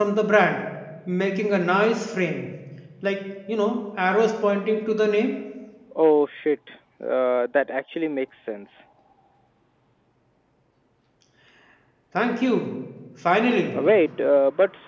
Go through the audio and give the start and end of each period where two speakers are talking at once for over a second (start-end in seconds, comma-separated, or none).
none